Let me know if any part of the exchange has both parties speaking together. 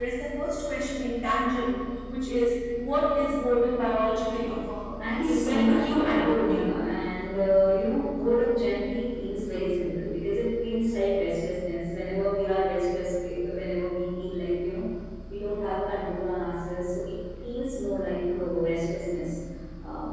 Yes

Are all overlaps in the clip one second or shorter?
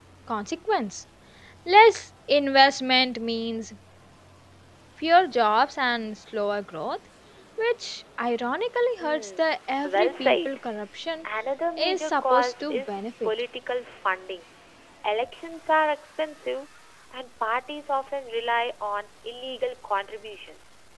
No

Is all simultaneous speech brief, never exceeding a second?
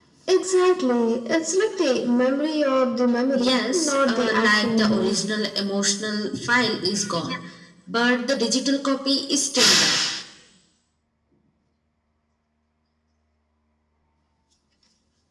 No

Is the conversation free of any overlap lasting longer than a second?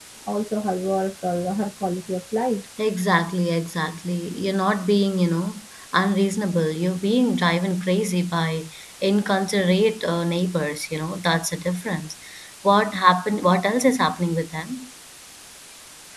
Yes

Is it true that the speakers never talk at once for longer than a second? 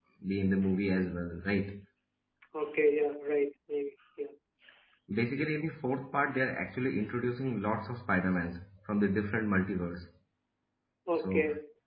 Yes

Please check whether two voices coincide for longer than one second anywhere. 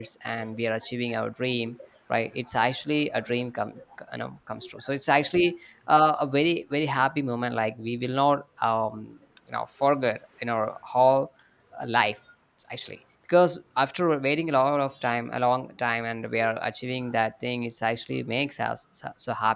No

